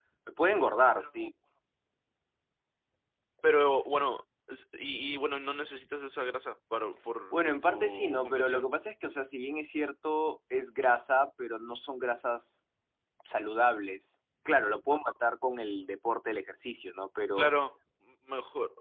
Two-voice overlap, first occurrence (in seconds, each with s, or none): 7.3 s